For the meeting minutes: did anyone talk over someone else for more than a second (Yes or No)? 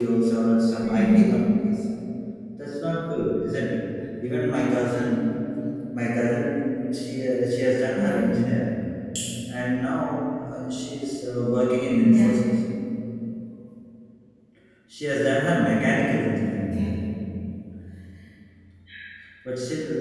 No